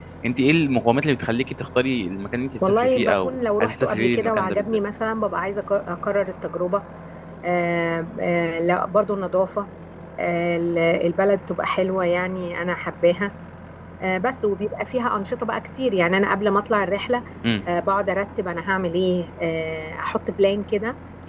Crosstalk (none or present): present